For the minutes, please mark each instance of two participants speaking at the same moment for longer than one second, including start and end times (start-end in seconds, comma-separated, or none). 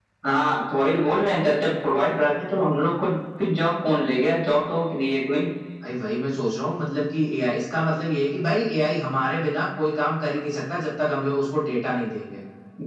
none